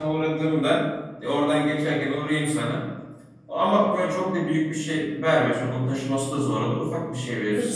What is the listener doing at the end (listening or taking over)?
taking over